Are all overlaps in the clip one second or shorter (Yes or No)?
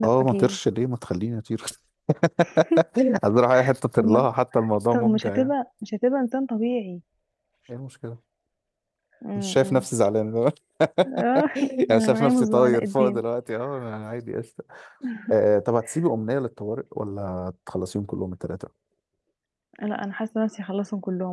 No